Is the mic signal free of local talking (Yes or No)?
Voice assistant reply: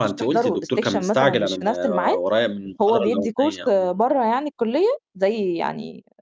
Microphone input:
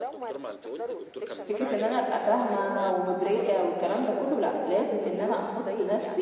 No